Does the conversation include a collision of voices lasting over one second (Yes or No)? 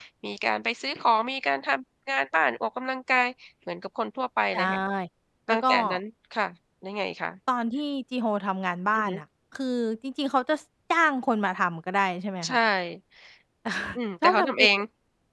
No